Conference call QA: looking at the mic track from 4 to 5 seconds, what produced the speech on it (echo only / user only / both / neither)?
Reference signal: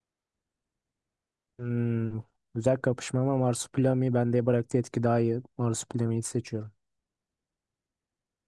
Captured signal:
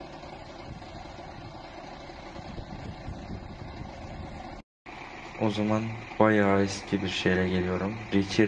neither